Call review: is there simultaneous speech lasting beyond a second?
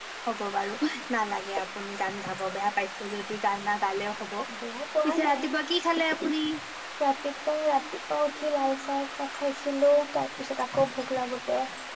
No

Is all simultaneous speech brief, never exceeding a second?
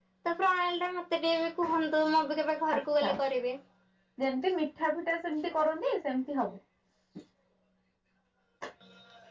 Yes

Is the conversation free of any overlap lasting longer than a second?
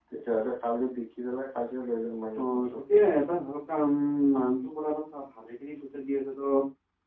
Yes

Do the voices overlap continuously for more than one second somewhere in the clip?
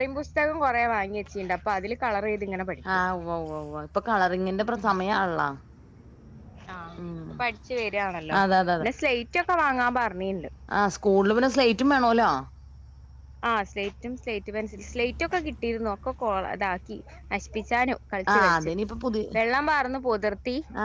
No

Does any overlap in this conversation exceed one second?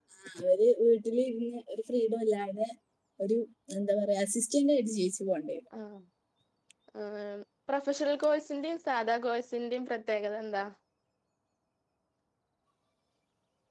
No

